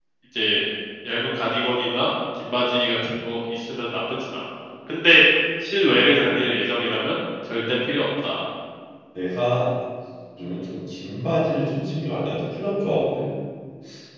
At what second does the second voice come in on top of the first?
none

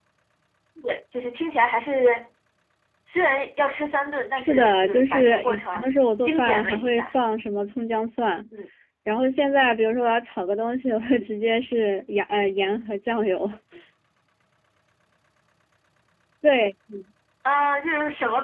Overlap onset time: 4 s

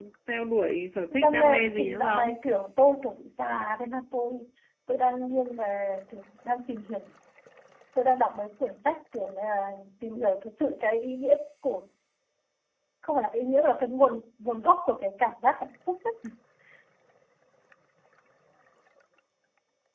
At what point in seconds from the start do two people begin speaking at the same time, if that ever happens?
1 s

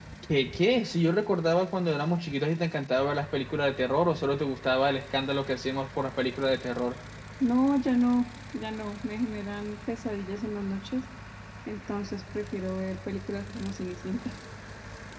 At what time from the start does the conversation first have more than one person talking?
none

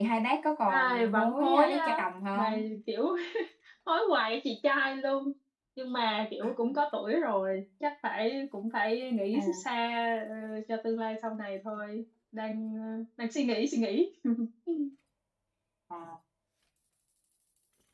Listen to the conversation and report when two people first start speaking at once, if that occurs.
1 s

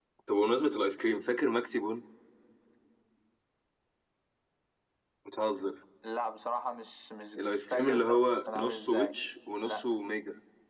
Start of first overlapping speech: 7 s

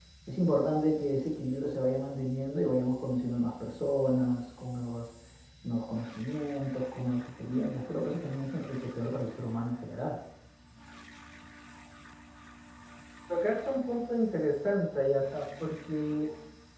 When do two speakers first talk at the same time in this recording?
none

